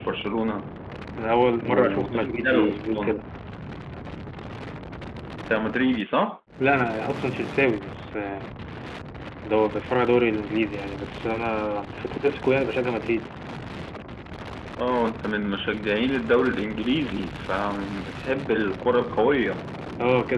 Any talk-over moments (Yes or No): Yes